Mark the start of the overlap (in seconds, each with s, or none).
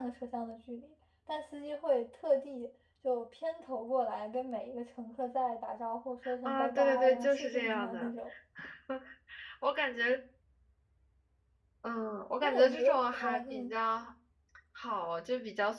6.4 s